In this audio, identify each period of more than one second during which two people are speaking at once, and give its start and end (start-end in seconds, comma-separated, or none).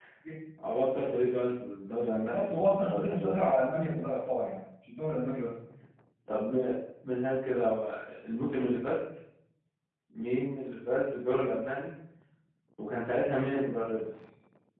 2.2-3.6